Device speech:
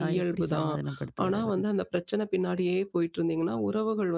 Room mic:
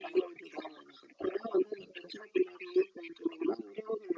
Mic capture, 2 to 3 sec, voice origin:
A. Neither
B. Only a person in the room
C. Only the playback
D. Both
C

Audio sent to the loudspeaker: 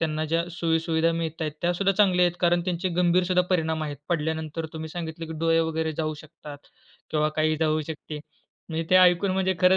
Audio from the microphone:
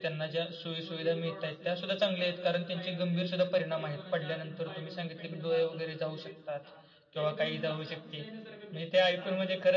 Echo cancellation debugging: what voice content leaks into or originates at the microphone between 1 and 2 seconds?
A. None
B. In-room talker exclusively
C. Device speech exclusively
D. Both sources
D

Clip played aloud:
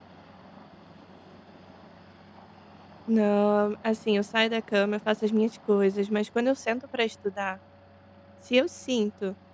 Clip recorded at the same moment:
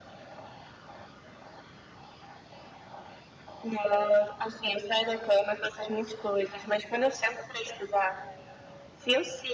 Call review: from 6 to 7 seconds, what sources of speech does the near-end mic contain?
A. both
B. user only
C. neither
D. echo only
D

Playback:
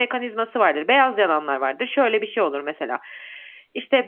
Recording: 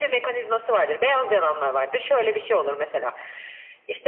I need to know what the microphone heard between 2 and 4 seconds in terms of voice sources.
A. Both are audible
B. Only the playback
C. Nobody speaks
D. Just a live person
B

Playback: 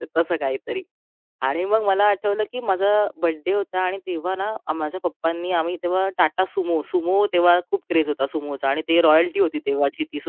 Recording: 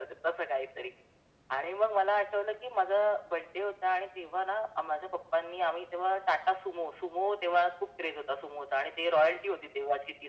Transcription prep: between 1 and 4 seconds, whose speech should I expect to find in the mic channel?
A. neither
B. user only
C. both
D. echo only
D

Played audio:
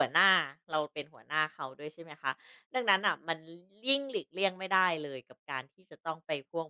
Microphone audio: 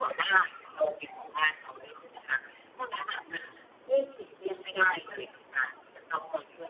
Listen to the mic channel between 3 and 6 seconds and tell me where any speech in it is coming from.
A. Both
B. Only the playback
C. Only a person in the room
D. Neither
B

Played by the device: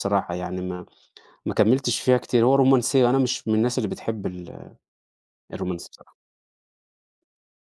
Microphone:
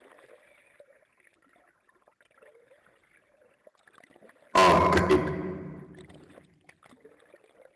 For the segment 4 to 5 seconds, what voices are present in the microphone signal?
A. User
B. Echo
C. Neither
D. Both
A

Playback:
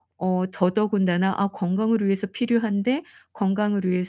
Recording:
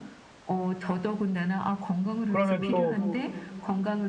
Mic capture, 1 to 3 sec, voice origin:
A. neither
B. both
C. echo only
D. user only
B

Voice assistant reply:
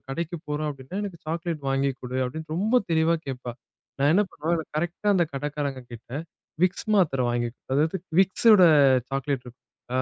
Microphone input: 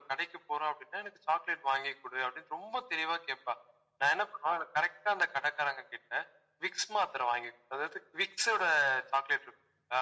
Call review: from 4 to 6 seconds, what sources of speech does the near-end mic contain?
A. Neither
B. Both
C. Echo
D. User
C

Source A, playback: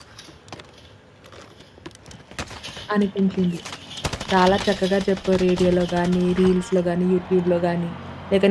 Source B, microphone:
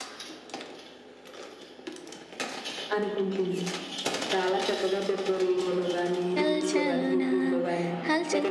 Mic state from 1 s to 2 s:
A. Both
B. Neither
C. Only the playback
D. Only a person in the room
B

